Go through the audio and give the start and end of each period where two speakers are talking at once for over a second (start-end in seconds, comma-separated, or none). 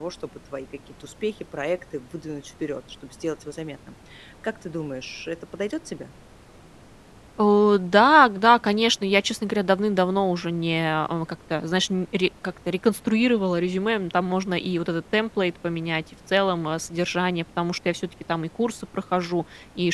none